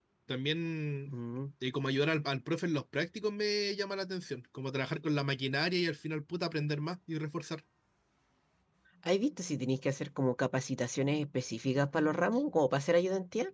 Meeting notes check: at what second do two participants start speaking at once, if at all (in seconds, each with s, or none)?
none